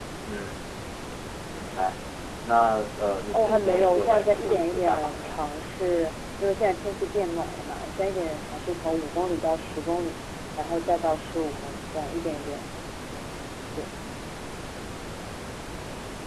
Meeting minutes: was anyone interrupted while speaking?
Yes, from 3.3 s

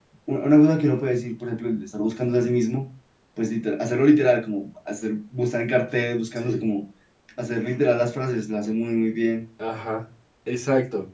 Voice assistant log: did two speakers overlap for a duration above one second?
No

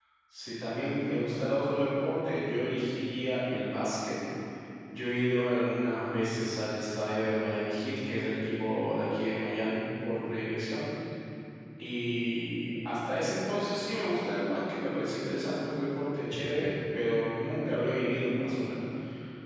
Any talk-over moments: No

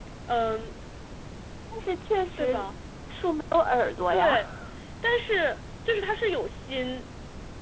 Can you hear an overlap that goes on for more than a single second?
No

